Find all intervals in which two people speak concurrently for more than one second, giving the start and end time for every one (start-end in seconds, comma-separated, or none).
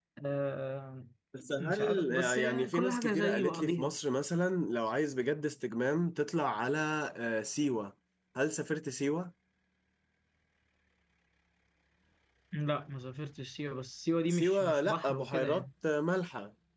1.6-3.9, 14.3-15.7